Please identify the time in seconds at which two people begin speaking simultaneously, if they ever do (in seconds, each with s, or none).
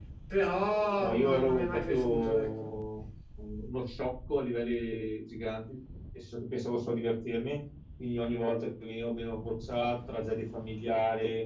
1.0 s